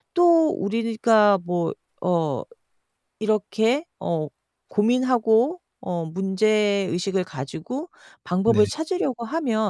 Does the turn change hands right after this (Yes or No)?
No